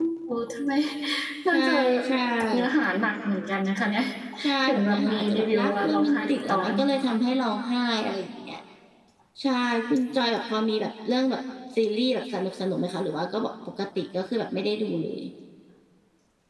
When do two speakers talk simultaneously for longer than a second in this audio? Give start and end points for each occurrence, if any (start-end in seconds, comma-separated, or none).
4.6-6.7